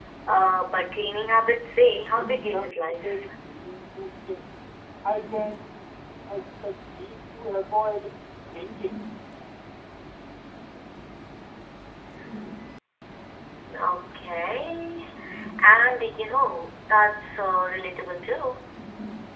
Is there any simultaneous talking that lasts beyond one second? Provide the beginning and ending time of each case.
2.0-3.2

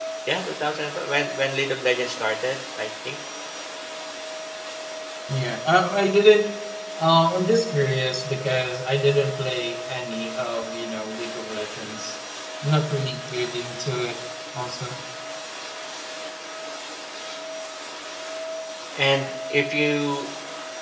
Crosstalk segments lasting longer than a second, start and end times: none

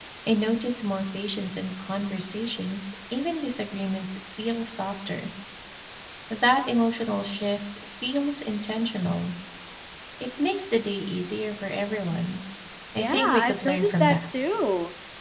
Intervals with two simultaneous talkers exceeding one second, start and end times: 13.0-14.3

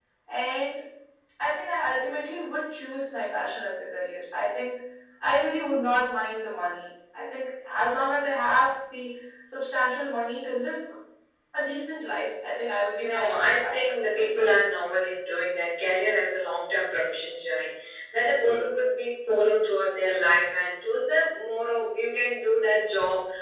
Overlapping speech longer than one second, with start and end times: 13.0-14.4

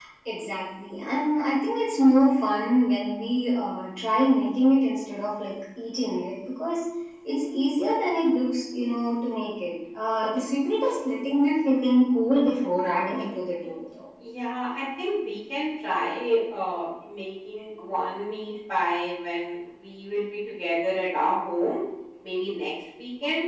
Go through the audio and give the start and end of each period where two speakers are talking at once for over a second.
none

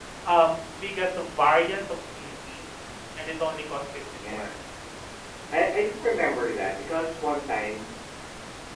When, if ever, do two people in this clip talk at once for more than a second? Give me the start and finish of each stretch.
none

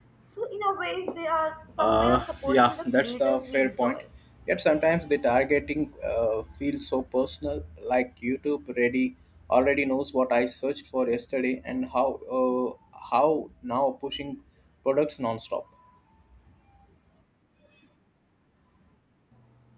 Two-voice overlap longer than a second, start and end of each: 1.8-4.0

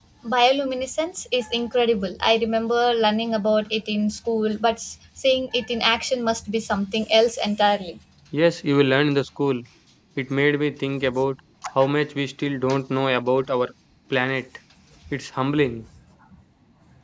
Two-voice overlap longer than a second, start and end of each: none

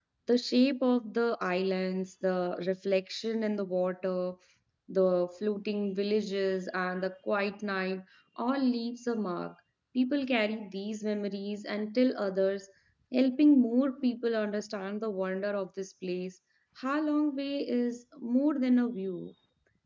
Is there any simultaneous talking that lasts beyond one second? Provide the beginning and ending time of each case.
none

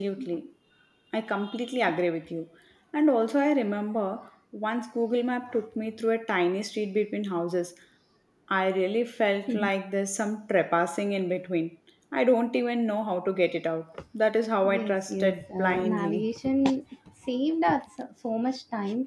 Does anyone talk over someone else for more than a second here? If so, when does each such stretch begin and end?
14.7-16.2

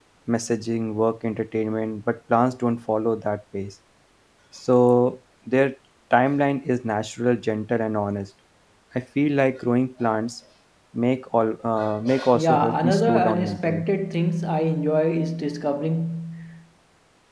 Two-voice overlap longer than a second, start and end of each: 12.3-13.8

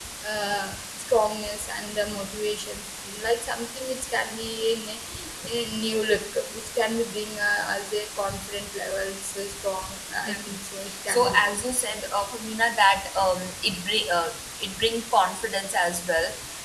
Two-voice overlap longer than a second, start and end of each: none

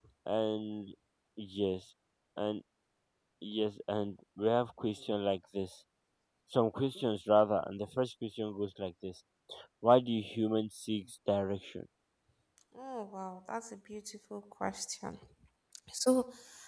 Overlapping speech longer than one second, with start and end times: none

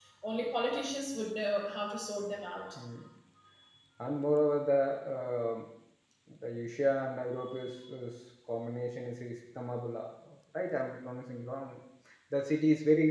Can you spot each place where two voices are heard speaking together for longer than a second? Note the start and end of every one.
none

